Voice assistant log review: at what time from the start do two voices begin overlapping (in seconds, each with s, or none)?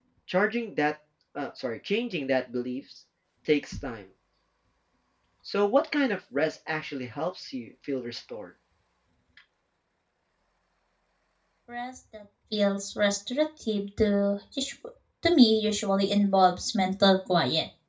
none